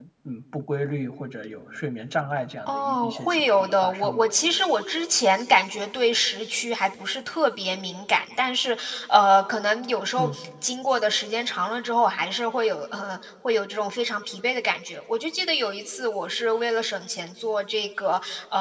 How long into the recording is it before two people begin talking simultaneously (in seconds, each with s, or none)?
2.7 s